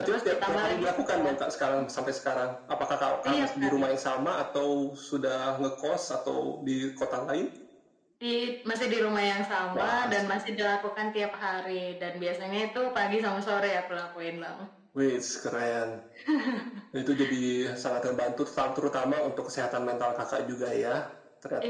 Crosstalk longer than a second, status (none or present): present